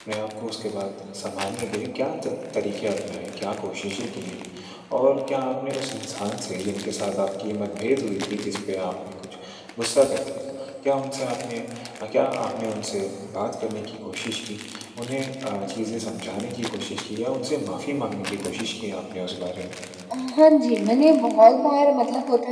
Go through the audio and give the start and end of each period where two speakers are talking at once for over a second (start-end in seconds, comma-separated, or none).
none